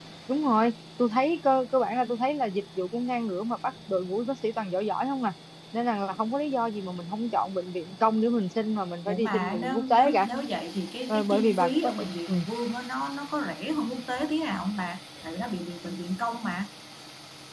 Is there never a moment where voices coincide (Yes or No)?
No